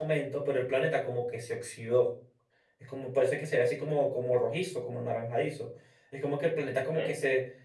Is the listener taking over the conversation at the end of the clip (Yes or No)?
No